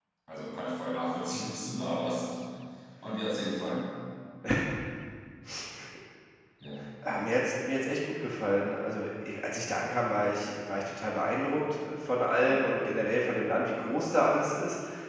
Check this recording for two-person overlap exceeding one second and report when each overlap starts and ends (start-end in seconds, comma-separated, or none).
none